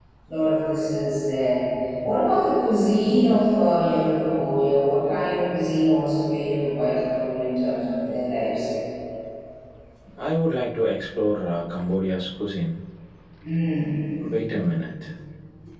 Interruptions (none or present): none